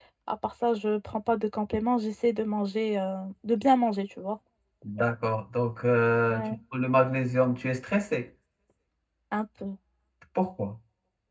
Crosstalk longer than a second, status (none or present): none